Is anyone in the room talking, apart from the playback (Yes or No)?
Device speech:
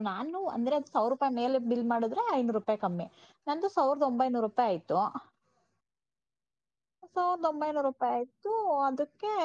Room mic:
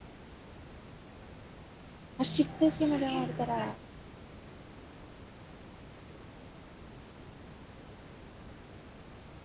Yes